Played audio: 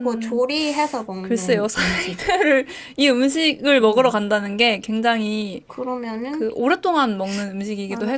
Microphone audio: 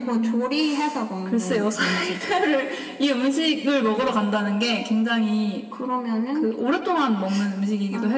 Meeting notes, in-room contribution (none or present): none